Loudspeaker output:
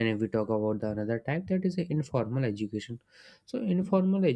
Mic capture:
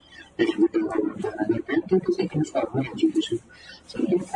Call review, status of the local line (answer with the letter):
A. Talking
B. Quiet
B